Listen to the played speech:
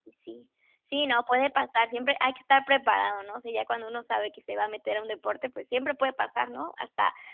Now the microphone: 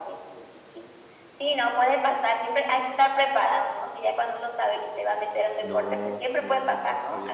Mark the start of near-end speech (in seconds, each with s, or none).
5.6 s